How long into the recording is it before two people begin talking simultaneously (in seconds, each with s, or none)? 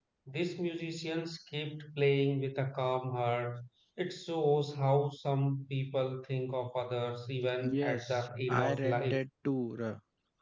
7.6 s